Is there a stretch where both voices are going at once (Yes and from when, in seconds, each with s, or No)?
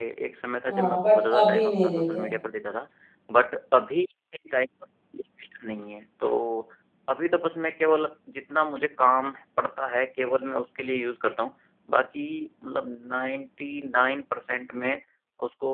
Yes, from 0.7 s